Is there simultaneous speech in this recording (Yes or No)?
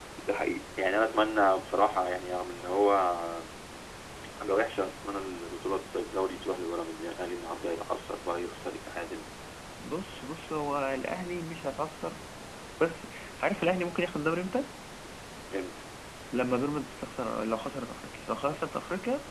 No